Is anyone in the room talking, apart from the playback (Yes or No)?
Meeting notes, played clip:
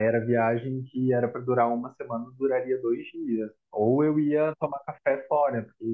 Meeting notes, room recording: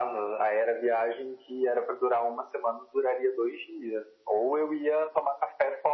No